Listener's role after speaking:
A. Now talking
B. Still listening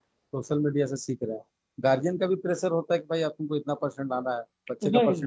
B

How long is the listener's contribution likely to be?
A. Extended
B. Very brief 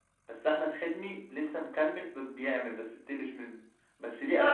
A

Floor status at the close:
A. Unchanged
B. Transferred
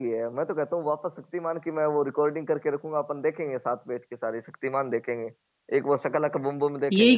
B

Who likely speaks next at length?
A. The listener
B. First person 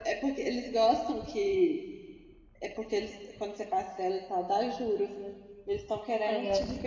B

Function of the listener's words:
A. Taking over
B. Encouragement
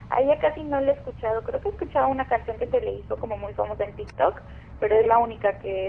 B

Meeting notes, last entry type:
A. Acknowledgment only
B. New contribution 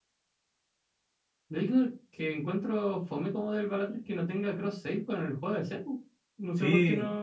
B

